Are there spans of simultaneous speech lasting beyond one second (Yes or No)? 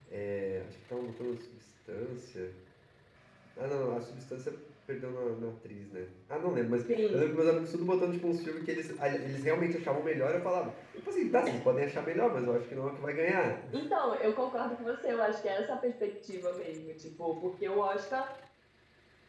No